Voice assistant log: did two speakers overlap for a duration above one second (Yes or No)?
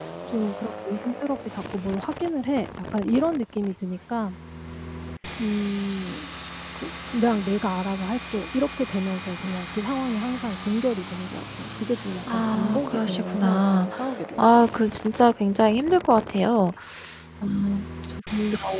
Yes